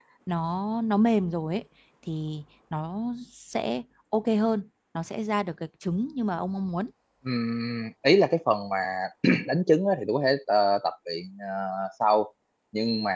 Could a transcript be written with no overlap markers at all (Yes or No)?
Yes